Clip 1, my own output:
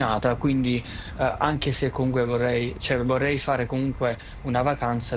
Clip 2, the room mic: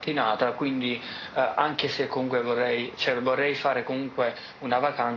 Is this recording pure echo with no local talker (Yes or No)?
Yes